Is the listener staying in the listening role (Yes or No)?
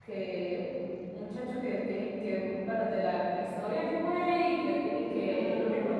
Yes